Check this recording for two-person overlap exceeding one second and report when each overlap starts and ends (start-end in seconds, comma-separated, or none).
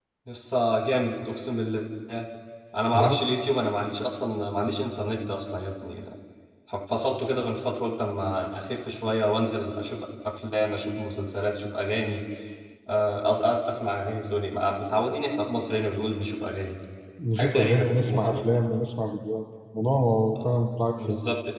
17.4-18.6